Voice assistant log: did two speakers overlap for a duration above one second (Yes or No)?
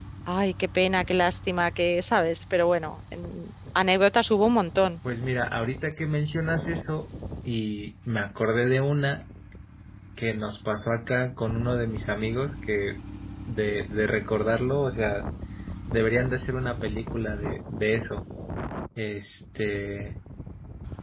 No